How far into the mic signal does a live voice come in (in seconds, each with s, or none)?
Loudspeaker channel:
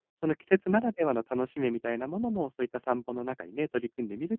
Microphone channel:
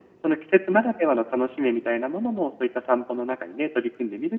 none